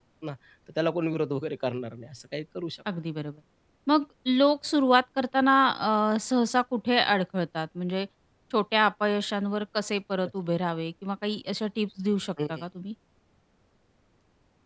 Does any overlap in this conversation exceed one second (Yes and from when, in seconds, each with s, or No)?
No